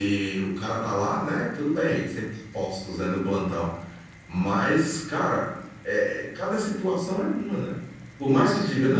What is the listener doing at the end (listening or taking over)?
listening